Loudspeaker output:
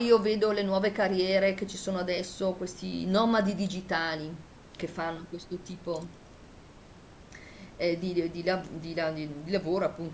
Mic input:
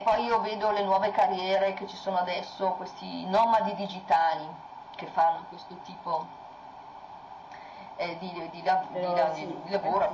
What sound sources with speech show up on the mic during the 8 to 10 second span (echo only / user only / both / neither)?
both